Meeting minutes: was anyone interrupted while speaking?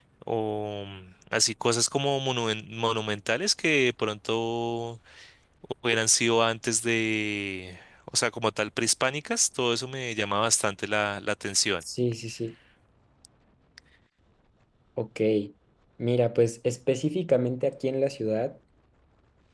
No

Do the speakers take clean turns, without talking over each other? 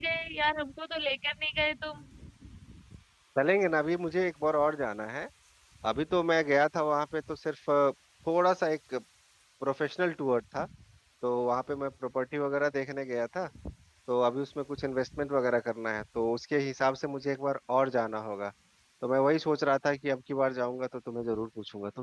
Yes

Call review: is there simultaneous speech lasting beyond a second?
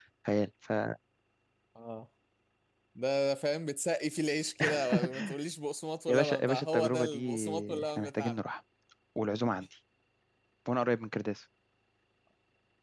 Yes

